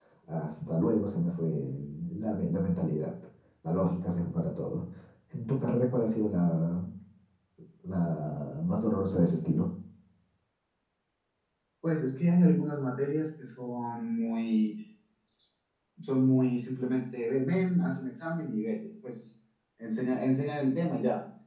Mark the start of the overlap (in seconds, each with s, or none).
none